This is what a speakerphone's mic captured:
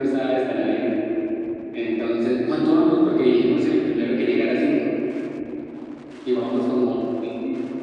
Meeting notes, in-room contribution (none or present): none